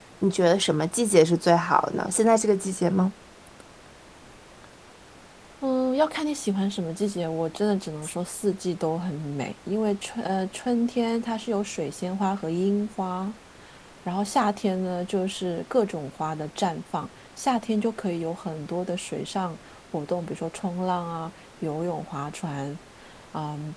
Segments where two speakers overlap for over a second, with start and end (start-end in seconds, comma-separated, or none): none